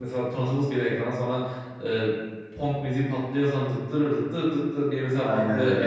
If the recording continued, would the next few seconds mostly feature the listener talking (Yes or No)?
No